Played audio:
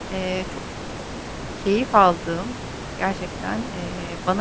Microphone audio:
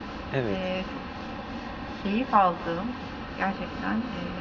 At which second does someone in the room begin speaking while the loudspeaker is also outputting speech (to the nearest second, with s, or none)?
0 s